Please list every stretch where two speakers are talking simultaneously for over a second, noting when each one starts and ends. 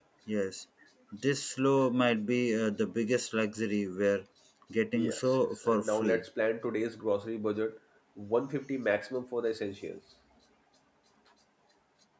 5.0-6.2

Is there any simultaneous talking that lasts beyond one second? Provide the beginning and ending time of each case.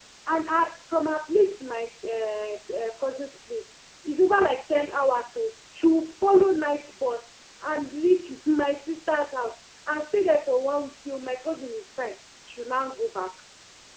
none

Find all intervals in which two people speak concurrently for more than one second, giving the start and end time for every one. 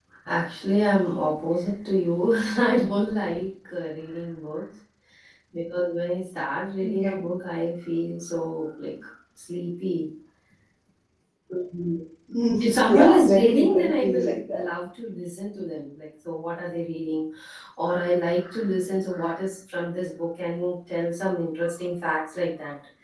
12.8-14.7

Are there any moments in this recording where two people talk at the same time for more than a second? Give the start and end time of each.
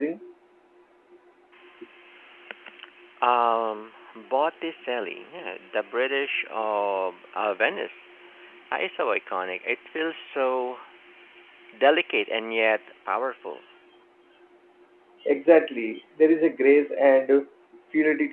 none

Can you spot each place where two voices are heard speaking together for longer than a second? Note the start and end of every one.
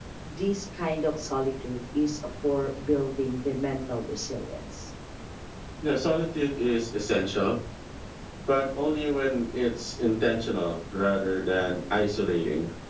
none

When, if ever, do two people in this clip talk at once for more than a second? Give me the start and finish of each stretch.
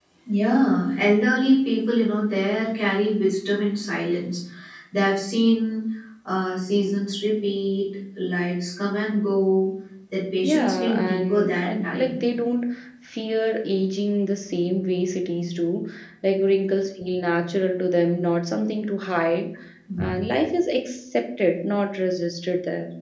10.4-12.2

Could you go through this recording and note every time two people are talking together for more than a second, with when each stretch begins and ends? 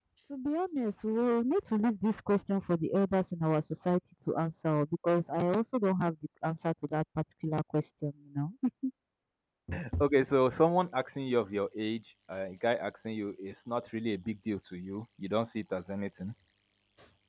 none

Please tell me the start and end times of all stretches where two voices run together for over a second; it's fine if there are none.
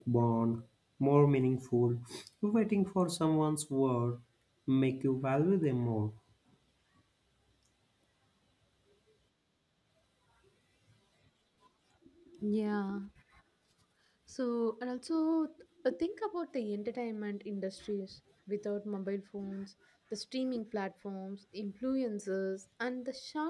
none

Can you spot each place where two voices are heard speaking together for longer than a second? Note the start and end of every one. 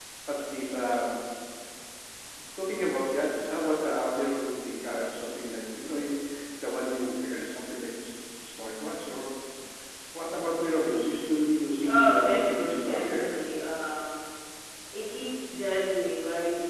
11.8-13.2

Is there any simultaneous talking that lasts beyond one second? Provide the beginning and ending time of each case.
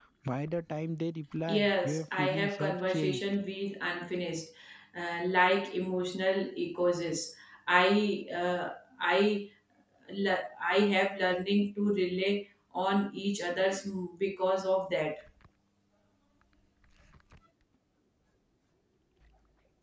1.5-3.2

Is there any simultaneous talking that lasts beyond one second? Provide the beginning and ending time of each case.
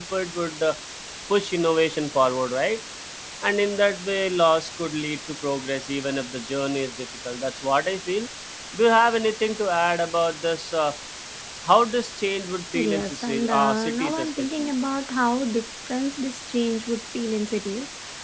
12.8-14.7

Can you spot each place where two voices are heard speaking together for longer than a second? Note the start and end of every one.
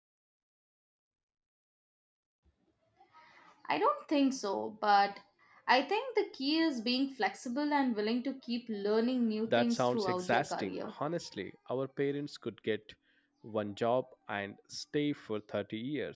9.5-10.8

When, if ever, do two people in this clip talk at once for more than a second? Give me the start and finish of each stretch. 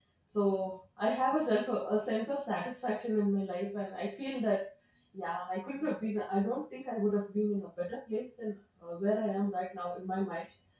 none

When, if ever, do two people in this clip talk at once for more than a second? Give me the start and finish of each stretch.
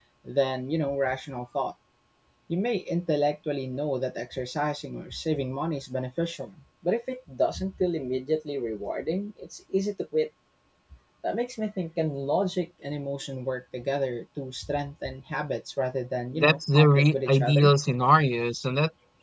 16.3-17.7

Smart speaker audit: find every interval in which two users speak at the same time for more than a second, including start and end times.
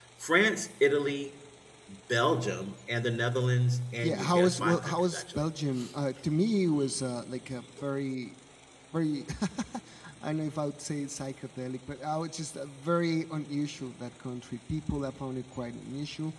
4.0-5.4

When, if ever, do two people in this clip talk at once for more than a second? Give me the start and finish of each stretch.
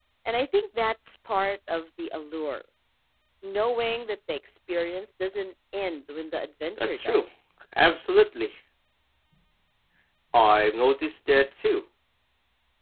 none

